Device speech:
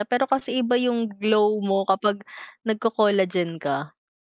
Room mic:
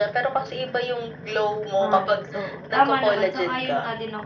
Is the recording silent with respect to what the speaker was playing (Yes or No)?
No